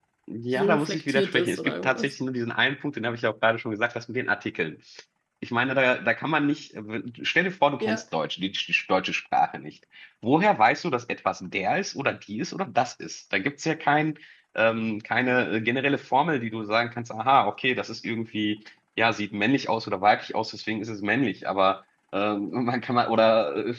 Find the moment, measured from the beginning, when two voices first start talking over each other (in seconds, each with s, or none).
0.6 s